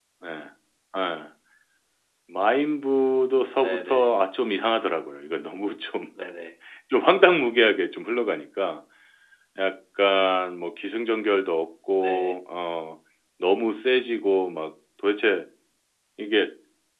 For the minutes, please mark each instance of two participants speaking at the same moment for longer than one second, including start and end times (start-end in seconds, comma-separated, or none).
none